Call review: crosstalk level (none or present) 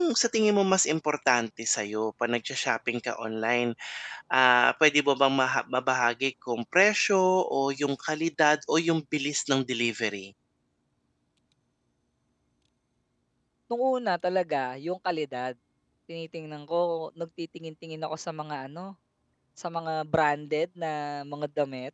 none